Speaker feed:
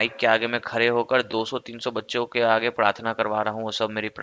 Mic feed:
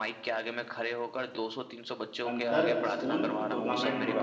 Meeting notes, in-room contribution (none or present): present